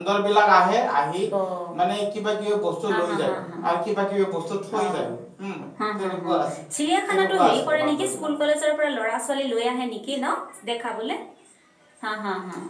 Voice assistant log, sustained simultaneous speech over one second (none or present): present